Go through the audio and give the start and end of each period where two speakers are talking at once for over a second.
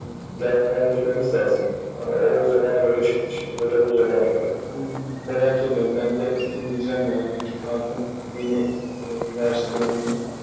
none

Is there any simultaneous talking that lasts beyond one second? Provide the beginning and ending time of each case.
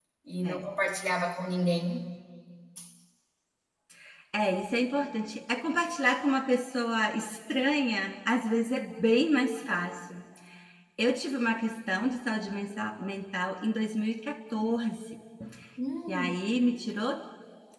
none

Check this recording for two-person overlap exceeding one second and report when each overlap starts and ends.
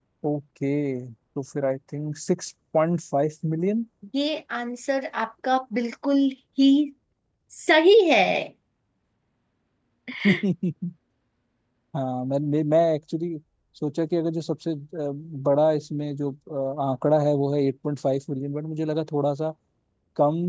none

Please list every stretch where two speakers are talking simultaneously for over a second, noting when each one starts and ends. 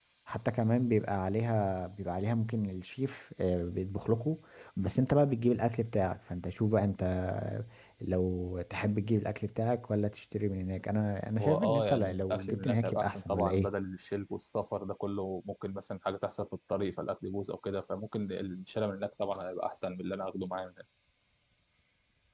11.4-13.7

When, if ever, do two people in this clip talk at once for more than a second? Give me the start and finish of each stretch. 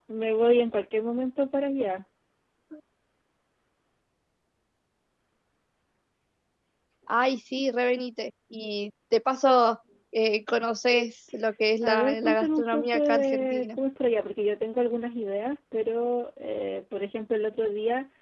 11.8-13.7

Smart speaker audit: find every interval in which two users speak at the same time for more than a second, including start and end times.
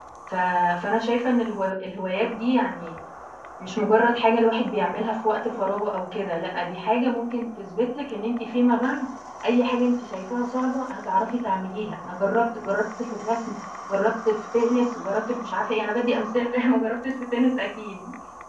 none

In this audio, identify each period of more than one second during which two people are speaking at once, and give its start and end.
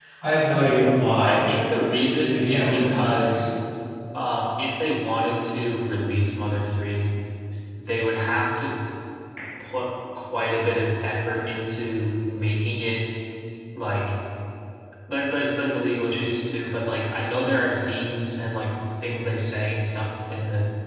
1.9-3.4

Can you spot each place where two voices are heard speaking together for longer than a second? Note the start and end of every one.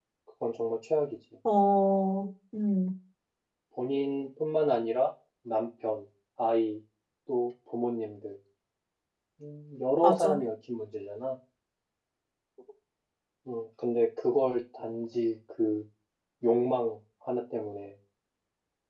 none

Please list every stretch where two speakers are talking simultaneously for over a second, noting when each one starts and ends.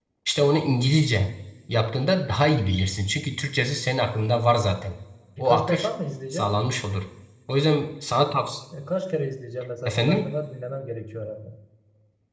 none

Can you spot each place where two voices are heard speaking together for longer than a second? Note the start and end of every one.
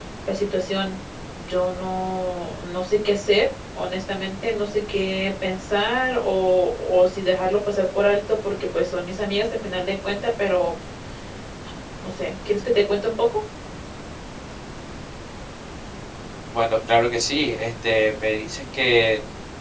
none

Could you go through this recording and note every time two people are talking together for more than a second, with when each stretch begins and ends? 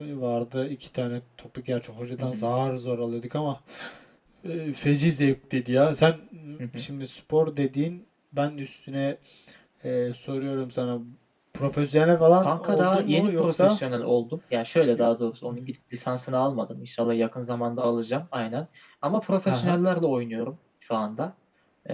12.4-13.8

